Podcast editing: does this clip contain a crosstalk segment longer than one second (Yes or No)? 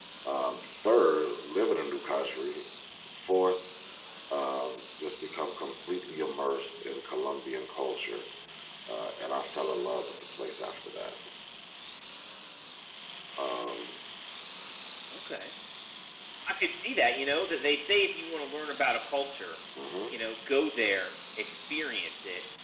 No